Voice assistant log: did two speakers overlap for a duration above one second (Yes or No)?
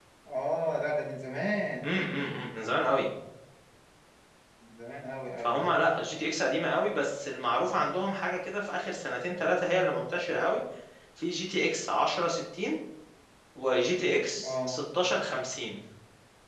No